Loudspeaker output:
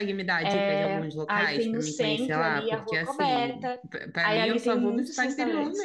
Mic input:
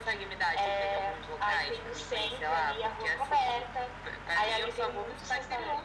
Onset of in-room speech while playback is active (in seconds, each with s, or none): none